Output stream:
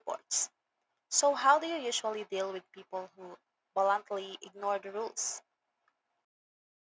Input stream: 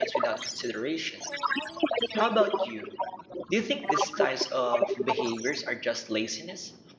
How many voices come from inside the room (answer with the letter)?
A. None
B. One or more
B